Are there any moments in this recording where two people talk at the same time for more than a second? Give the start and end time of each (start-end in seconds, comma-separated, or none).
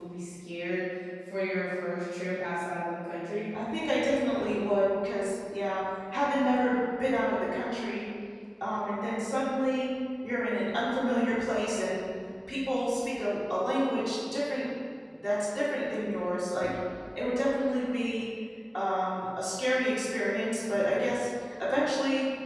none